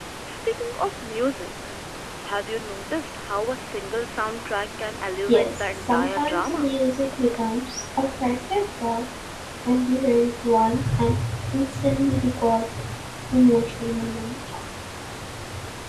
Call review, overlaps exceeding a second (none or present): present